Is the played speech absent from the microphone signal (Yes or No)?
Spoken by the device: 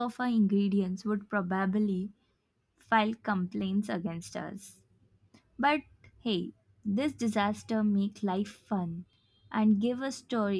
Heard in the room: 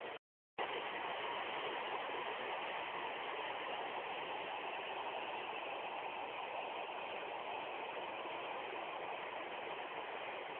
Yes